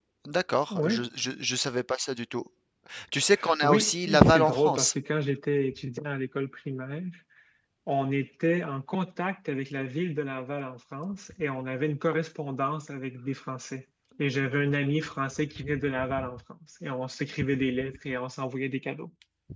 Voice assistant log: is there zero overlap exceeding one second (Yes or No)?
No